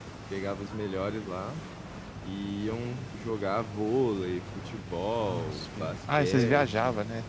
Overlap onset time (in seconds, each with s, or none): 5.2 s